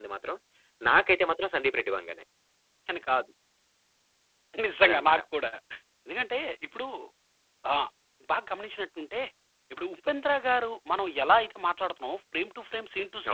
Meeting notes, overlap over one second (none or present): none